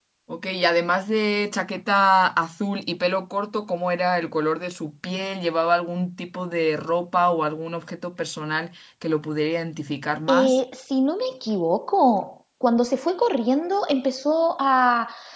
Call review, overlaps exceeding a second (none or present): none